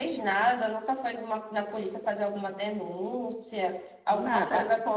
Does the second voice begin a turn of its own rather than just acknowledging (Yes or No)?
No